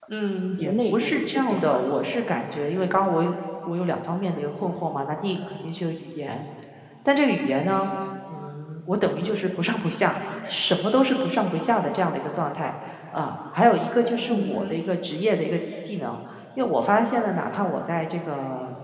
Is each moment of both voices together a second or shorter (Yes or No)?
No